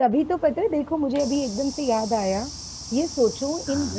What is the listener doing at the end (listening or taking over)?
listening